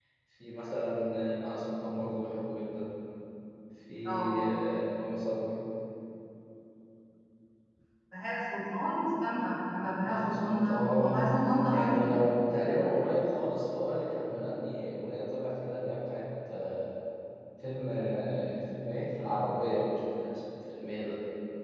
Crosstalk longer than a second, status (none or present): present